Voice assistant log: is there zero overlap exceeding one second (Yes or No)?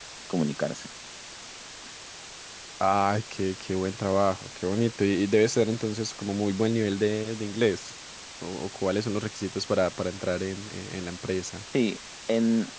Yes